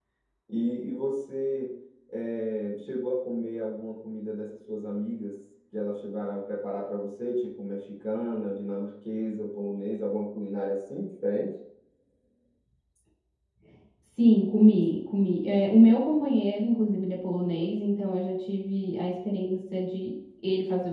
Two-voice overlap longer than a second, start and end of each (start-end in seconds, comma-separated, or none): none